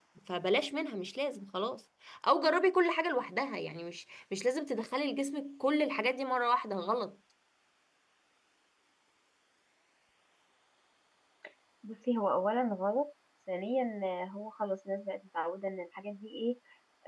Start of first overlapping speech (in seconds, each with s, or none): none